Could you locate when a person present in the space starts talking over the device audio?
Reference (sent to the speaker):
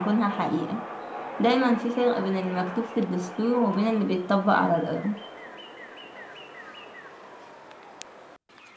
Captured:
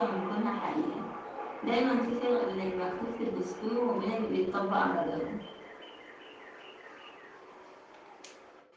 none

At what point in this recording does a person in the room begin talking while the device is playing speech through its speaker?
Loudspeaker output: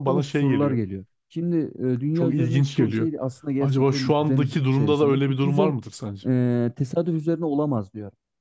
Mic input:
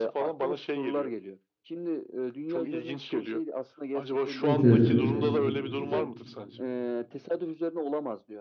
4 s

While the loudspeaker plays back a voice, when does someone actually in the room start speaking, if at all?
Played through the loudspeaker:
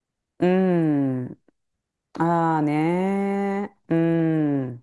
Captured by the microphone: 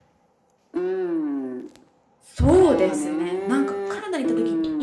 2 s

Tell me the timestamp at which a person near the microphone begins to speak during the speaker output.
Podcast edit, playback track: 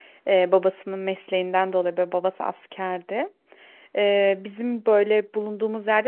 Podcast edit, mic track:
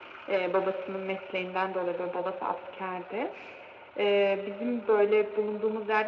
none

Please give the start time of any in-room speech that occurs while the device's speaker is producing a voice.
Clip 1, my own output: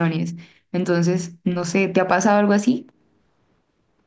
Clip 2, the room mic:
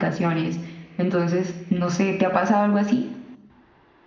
none

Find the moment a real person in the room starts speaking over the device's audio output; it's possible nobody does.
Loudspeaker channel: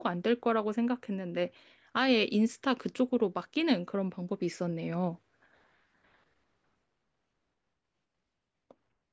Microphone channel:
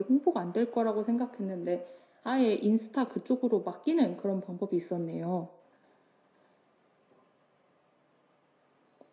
none

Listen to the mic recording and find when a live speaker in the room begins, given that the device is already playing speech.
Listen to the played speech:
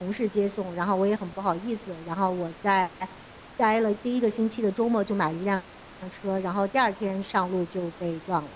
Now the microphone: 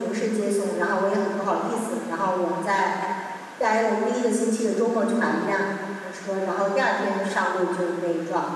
none

